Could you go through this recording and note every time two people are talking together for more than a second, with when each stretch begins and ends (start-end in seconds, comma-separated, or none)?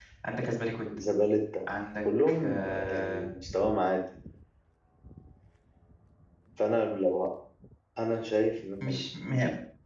2.0-3.2